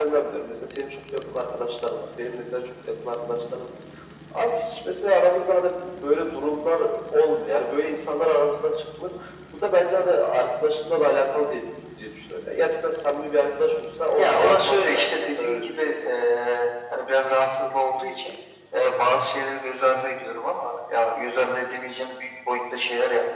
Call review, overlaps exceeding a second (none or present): present